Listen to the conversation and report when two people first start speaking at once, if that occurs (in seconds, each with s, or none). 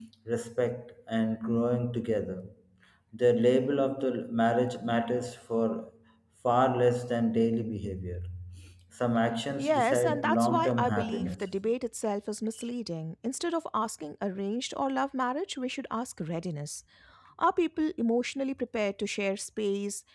9.6 s